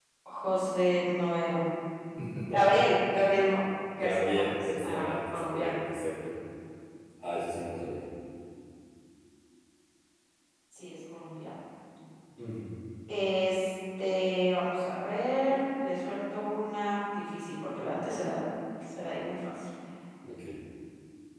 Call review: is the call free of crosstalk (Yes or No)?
No